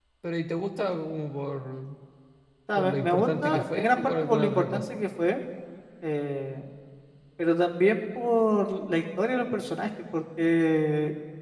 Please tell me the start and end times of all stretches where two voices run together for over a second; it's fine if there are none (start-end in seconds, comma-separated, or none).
2.8-5.0